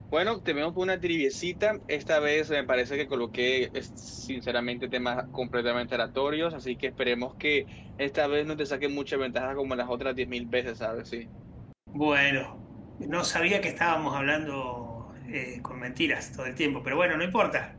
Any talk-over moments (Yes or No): No